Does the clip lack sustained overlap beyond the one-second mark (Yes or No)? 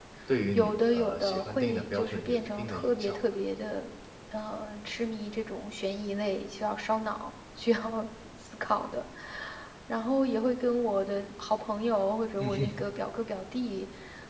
No